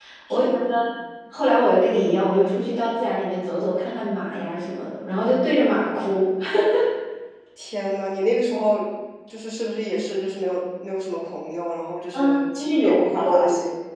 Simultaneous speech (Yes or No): Yes